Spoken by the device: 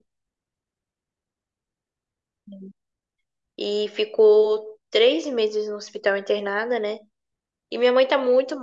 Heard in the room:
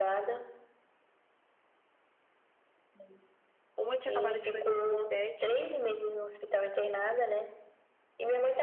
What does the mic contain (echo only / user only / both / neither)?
both